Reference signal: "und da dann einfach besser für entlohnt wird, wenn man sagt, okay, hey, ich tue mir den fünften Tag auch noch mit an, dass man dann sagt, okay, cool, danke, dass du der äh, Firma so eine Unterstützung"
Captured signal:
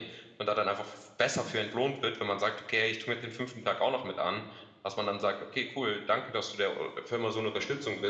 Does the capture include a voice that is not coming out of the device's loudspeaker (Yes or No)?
No